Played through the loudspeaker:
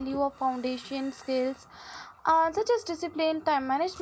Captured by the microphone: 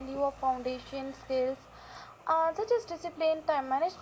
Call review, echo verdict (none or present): present